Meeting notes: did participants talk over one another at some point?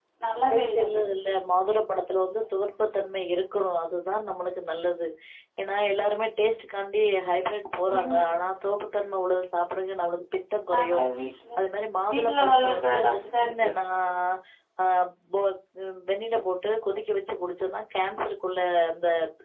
Yes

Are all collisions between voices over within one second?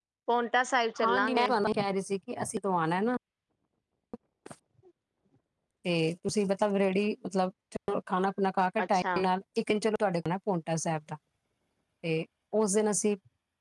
Yes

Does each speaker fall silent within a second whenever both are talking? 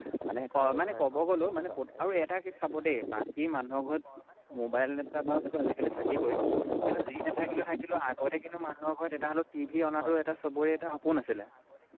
No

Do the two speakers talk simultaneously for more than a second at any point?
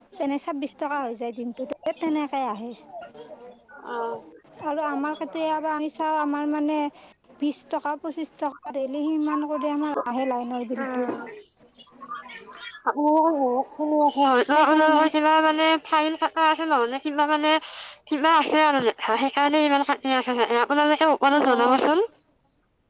No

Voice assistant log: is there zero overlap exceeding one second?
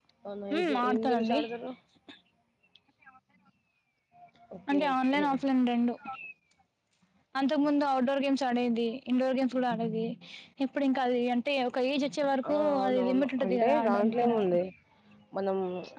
No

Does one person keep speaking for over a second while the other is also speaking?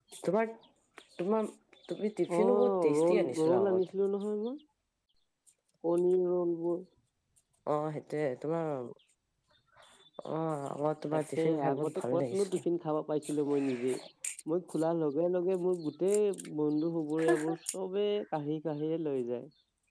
Yes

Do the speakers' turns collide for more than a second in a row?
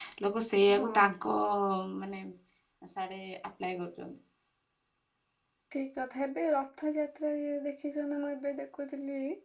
No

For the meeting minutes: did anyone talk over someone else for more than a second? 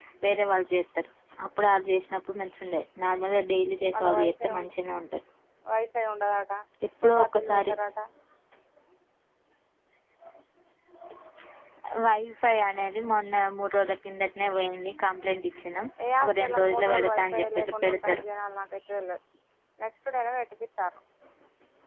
Yes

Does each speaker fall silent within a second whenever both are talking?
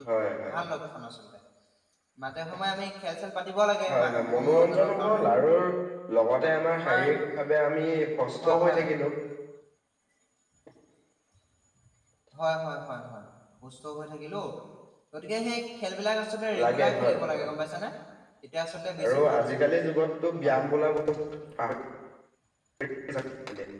No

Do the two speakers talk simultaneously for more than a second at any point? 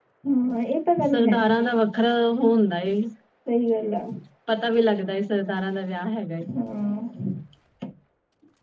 No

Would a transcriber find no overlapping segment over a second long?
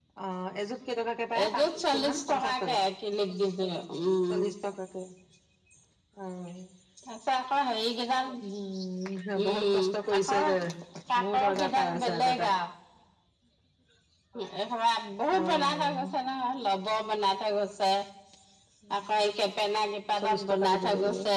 No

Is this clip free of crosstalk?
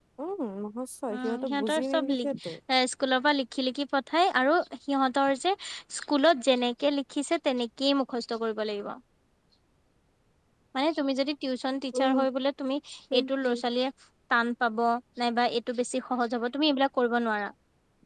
No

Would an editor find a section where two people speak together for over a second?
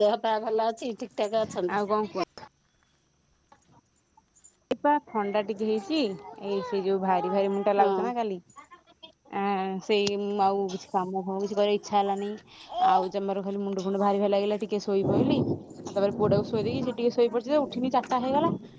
No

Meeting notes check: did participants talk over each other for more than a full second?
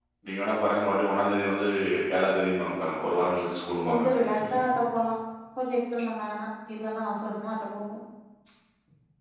No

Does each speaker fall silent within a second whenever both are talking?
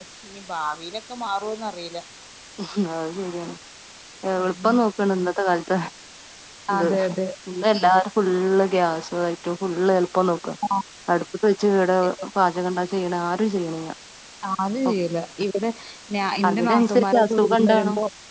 No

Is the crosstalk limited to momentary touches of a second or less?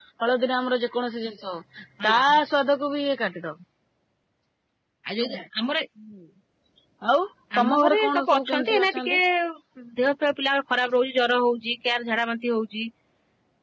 No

